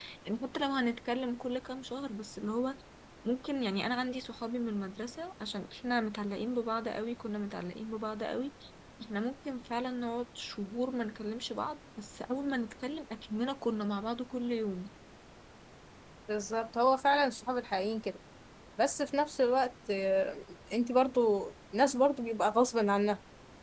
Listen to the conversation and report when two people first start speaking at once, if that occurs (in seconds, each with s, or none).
none